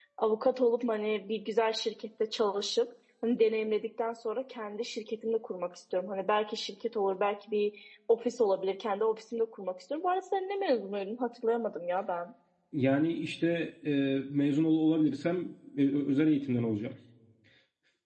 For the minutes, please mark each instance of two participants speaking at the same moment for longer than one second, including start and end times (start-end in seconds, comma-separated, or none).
none